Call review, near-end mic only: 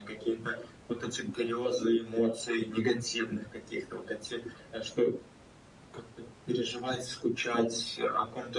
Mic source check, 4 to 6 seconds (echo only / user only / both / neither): echo only